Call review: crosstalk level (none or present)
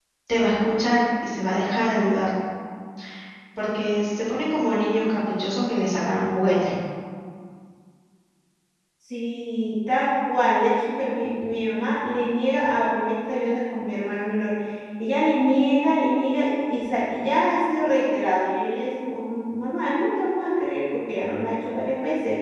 none